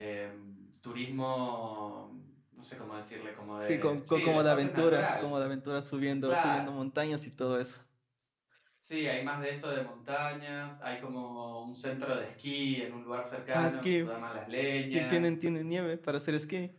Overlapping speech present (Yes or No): Yes